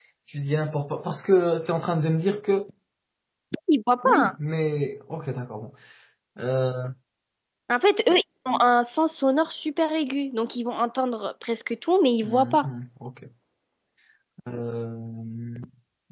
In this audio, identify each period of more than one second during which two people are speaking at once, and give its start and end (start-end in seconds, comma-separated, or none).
none